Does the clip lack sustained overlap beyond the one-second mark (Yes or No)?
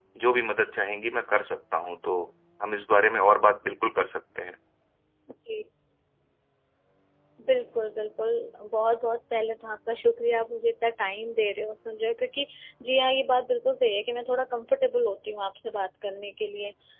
Yes